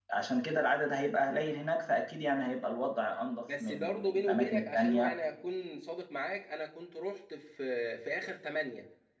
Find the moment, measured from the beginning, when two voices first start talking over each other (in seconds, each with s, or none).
3.5 s